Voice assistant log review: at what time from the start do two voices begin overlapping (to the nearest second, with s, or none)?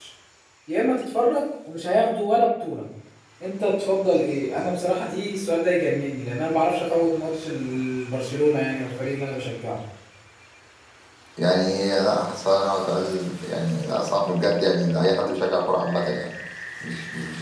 none